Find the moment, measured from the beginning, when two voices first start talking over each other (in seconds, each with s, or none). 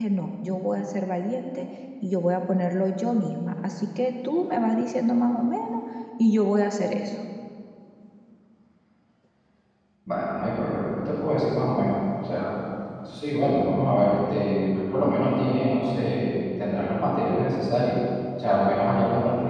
none